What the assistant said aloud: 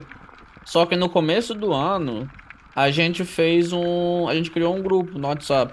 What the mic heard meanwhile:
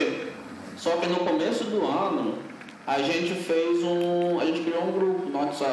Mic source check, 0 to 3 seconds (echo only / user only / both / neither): echo only